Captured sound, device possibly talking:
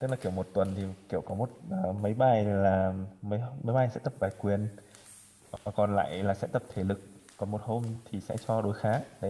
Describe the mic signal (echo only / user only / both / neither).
user only